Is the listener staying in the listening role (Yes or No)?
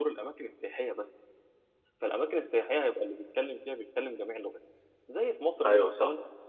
Yes